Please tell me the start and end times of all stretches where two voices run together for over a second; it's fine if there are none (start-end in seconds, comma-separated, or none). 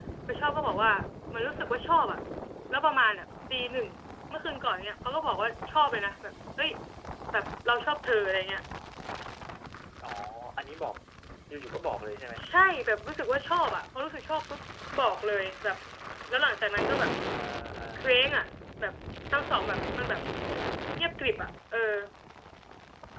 none